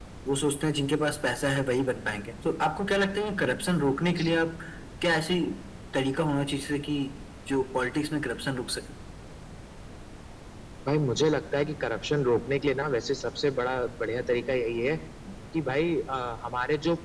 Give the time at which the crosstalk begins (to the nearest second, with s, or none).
none